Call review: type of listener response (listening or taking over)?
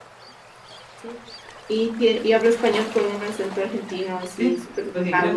taking over